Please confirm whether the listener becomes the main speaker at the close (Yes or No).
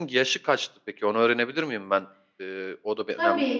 Yes